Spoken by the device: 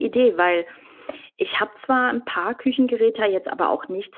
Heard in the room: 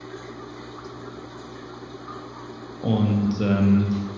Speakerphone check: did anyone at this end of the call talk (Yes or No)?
Yes